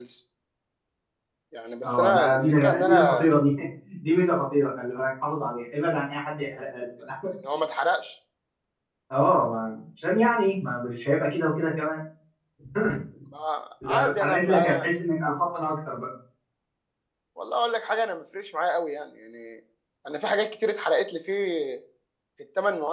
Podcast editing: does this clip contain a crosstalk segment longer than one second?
Yes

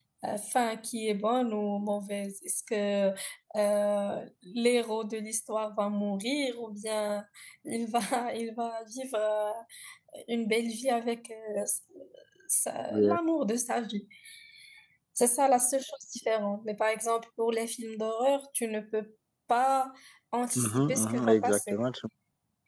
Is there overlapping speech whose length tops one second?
Yes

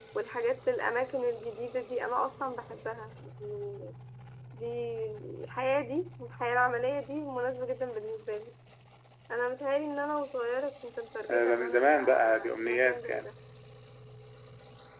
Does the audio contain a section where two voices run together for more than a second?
Yes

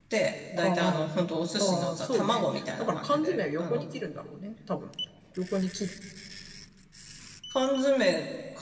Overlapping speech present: Yes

